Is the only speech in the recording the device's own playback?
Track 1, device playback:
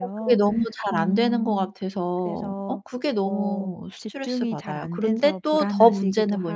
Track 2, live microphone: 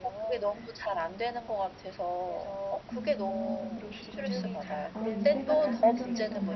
No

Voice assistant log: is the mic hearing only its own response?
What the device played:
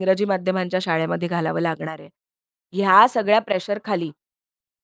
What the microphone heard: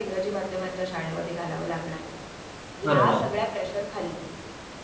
No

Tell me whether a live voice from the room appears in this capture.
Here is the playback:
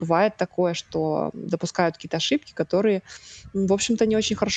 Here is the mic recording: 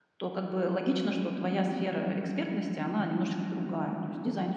Yes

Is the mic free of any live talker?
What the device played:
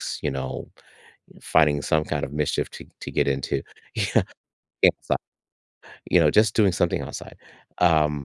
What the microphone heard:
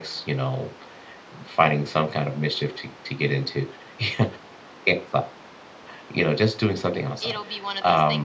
No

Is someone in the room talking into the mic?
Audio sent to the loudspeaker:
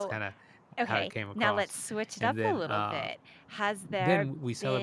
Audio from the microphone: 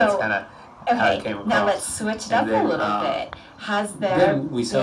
No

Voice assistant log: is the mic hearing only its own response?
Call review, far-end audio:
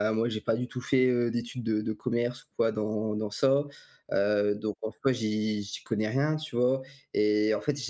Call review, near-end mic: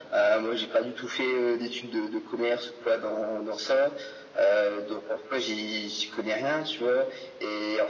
Yes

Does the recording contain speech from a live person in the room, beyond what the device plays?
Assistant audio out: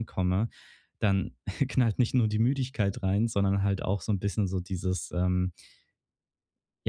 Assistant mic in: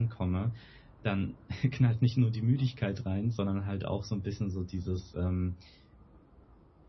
No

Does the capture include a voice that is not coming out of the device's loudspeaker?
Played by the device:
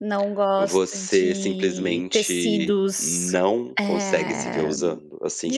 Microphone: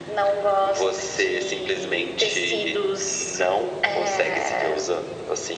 No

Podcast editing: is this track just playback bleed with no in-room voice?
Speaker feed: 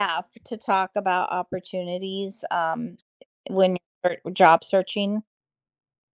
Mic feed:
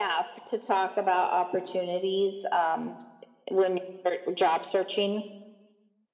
Yes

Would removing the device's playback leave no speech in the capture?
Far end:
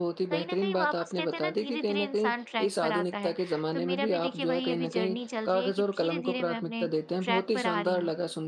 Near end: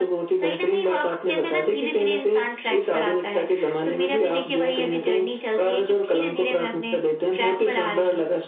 Yes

